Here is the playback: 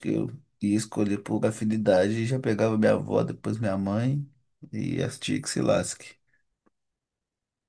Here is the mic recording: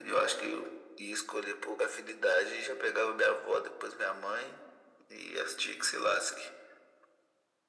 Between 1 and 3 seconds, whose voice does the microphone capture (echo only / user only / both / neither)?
echo only